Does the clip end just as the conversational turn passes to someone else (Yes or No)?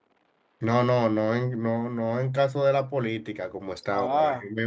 No